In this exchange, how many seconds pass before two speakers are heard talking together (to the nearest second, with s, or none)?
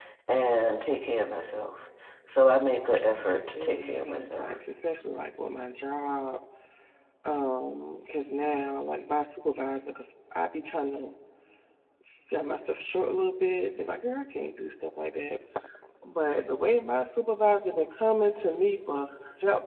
3 s